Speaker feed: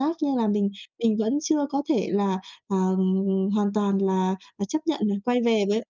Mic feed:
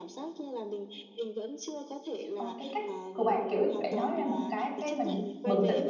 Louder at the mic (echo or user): user